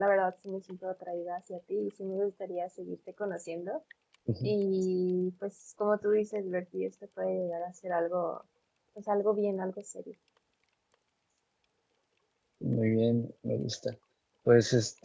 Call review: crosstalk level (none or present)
none